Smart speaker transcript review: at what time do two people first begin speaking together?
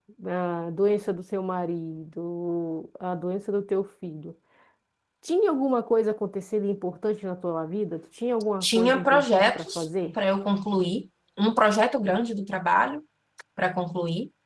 8.6 s

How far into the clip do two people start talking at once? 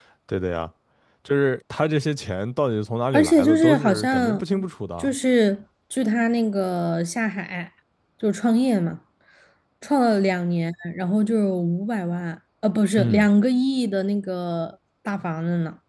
3.1 s

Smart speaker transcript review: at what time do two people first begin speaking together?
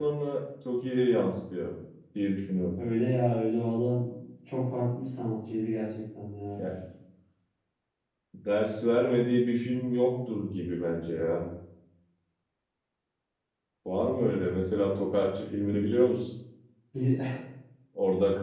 none

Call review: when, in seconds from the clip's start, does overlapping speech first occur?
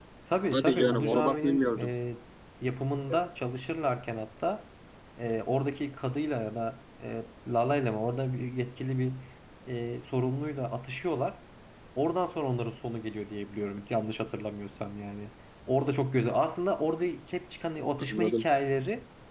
0.5 s

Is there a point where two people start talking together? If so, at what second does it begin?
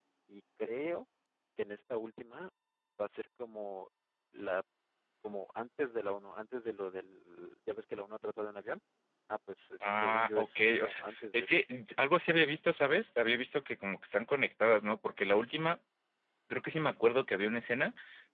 9.9 s

